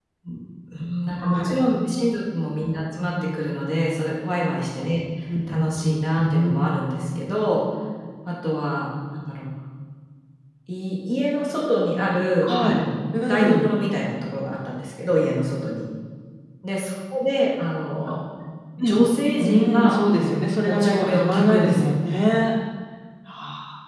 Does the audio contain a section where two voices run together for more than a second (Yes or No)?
Yes